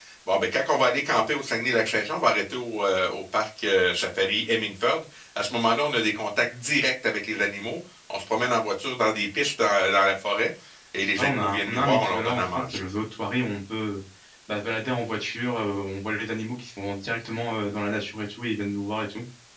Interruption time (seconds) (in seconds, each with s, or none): 11.2 s